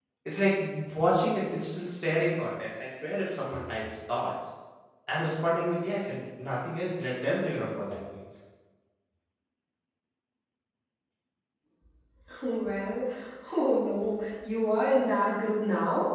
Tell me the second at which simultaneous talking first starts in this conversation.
none

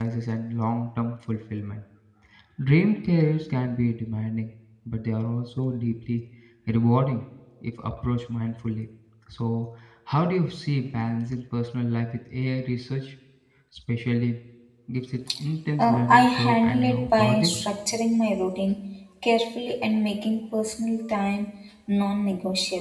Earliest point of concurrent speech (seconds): 16 s

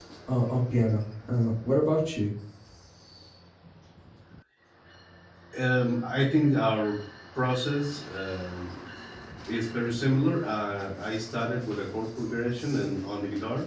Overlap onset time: none

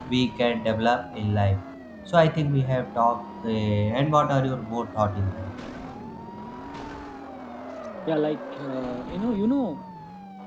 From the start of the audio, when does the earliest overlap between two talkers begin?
none

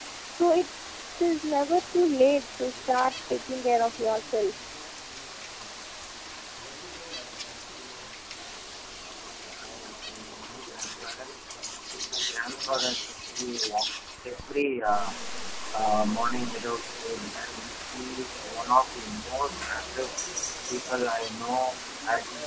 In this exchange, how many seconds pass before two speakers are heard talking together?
none

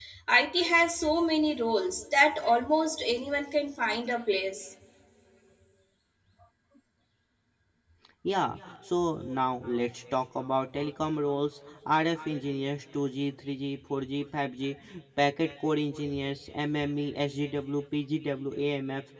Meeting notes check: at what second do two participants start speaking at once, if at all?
none

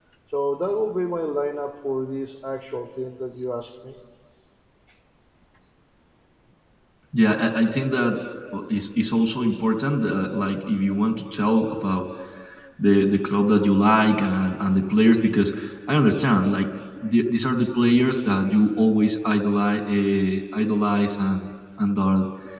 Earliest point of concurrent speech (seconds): none

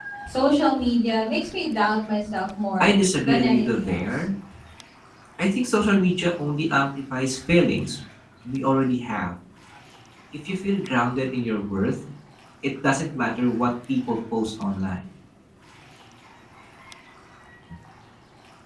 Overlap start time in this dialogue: 3 s

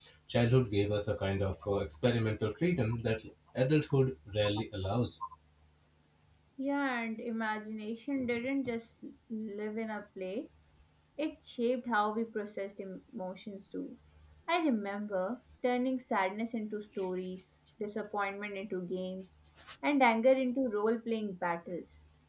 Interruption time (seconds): none

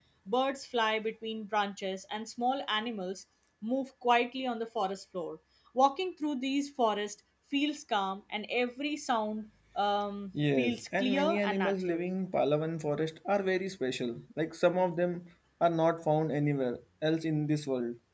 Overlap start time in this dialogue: 10 s

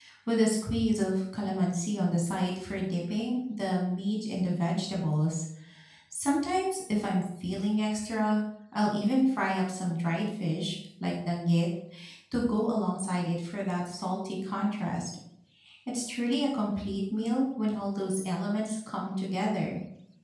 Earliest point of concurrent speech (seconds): none

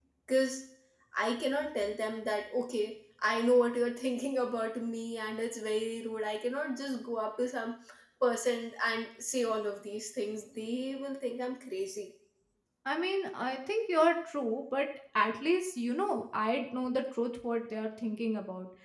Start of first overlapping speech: none

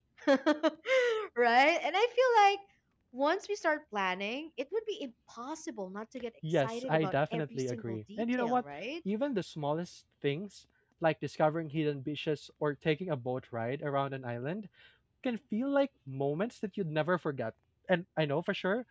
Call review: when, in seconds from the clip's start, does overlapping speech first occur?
6 s

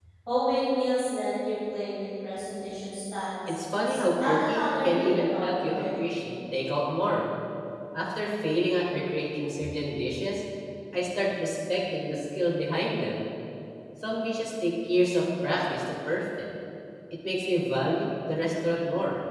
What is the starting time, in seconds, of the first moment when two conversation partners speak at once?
3 s

